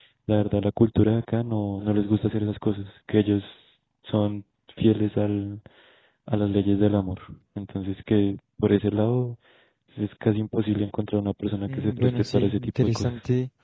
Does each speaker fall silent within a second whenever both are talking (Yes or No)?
No